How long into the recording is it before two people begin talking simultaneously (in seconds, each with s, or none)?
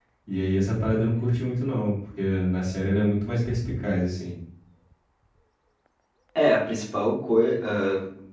none